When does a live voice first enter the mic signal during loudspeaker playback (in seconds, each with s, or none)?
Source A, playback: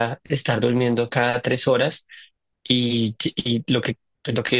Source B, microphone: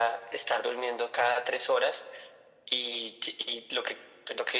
none